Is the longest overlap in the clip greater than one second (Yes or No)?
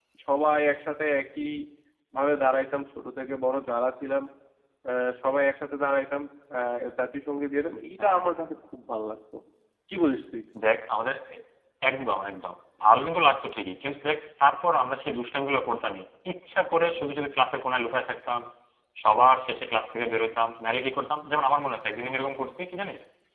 No